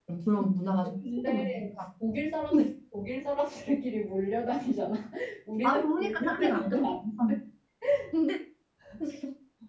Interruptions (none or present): present